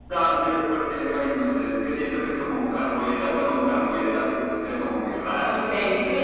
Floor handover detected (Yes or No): Yes